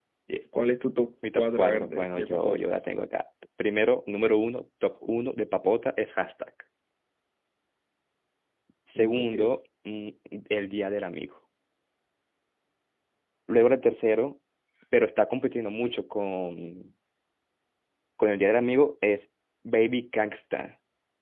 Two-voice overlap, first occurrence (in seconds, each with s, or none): 1.4 s